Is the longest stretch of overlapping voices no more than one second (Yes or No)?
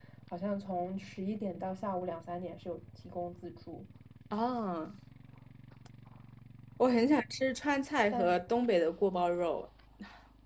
Yes